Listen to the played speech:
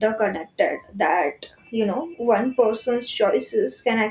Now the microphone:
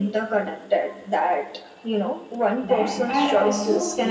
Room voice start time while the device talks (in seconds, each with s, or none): 2.7 s